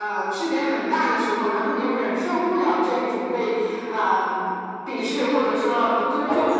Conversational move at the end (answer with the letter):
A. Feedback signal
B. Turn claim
A